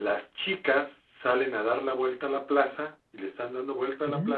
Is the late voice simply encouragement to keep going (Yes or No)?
Yes